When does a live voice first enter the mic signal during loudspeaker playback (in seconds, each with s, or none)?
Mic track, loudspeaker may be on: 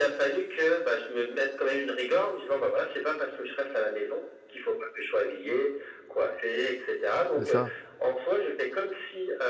7.4 s